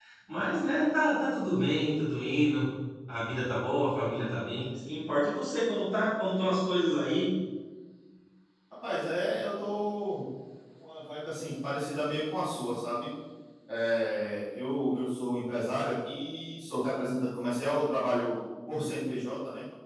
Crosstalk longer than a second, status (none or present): none